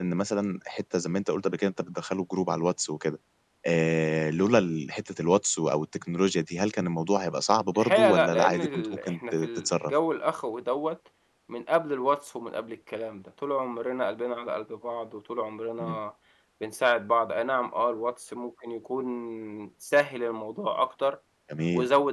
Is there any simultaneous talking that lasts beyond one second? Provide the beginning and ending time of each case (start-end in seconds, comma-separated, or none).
7.8-9.9